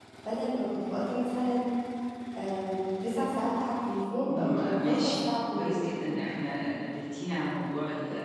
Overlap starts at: 4.2 s

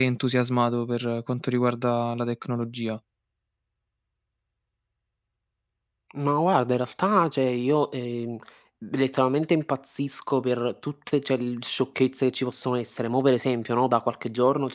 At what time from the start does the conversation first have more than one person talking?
none

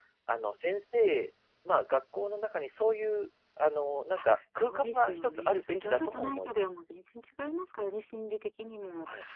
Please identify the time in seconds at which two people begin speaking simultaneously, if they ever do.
4.2 s

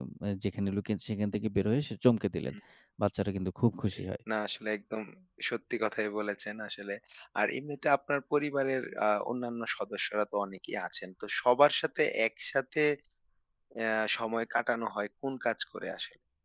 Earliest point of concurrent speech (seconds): none

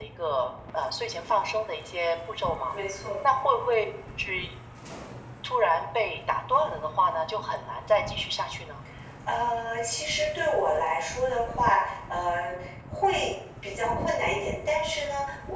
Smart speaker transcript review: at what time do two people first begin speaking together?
none

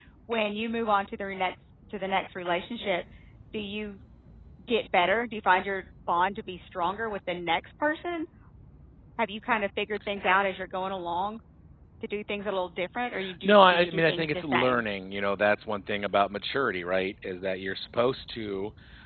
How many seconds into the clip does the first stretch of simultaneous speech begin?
13.2 s

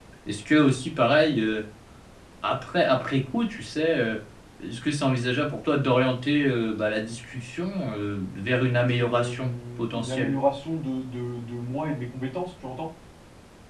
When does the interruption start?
9.0 s

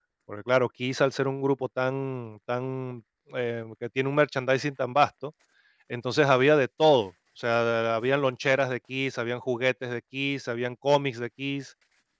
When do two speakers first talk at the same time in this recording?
none

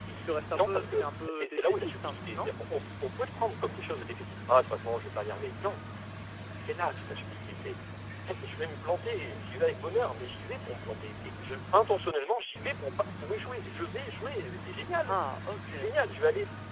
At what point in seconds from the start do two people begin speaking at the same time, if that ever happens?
0.5 s

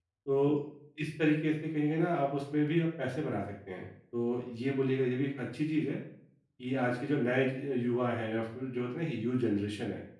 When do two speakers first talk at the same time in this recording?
none

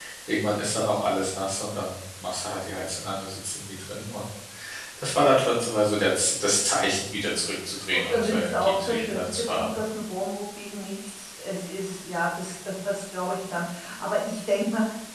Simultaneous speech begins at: 7.9 s

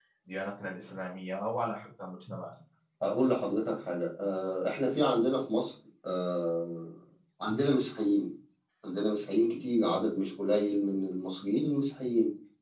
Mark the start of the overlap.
none

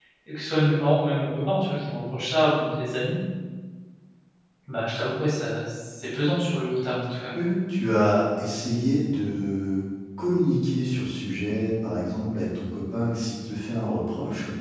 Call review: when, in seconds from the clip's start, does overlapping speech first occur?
none

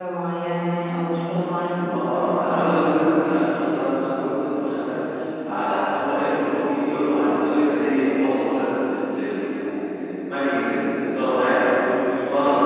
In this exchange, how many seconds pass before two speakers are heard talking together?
1.9 s

